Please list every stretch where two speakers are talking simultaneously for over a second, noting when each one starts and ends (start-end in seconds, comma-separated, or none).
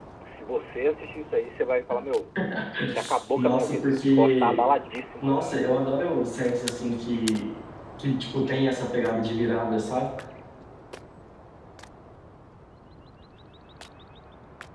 3.4-4.6